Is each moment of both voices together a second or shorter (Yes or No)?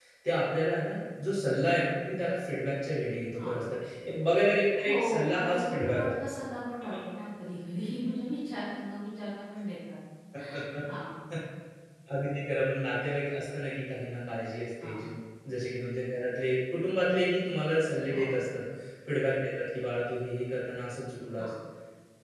No